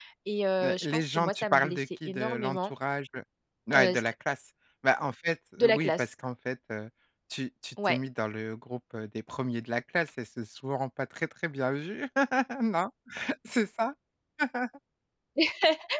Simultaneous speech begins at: 0.6 s

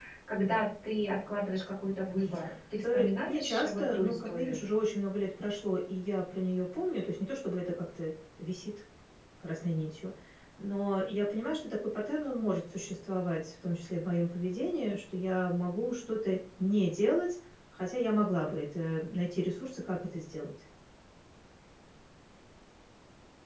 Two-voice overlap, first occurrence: 2.8 s

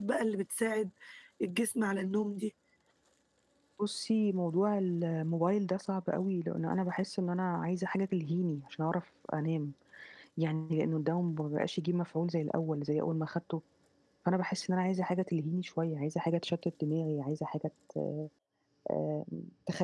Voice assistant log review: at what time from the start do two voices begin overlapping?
none

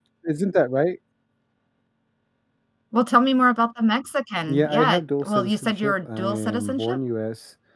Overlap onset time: 4.5 s

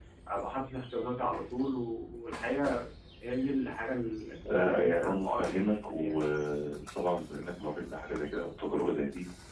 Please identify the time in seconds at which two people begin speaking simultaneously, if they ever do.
4.4 s

